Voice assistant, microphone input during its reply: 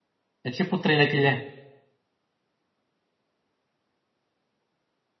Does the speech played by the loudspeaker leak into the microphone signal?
No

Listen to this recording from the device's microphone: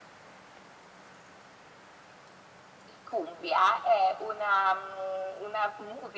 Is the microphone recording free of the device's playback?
No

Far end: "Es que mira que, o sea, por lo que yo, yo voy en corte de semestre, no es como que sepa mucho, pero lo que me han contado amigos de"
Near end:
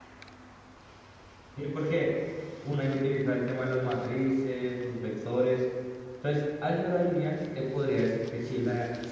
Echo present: No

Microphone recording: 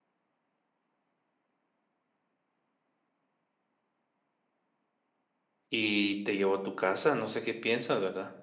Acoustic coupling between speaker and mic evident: No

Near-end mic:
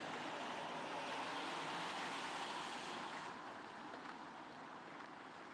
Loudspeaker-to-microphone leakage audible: No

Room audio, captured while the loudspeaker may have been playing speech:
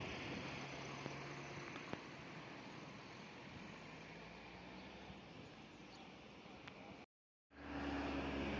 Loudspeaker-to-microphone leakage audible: No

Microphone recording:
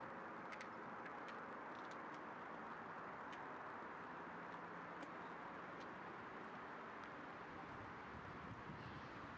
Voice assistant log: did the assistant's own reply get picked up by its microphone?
No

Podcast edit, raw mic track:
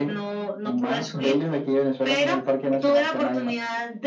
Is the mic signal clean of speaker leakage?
No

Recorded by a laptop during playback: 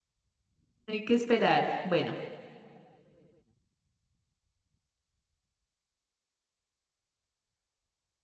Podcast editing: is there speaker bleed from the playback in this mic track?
No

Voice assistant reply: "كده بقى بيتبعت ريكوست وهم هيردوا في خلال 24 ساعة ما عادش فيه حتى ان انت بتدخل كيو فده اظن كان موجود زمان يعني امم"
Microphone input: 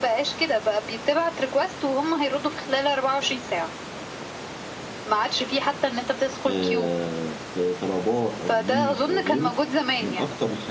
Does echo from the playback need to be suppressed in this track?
Yes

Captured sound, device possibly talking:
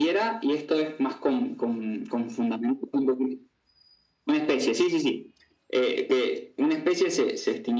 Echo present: Yes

